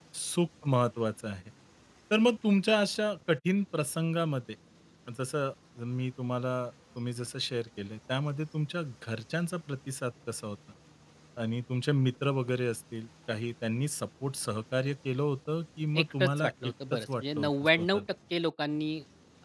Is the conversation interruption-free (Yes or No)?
No